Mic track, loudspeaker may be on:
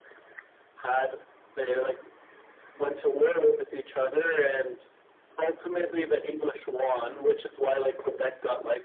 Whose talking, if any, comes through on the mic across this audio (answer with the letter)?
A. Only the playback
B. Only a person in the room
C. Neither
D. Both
A